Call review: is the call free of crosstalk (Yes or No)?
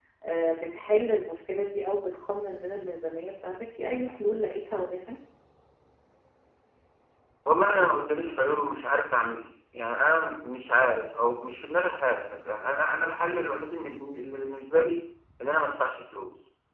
Yes